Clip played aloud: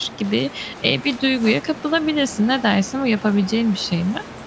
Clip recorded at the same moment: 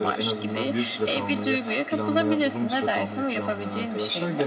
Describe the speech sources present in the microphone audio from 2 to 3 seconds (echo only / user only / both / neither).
both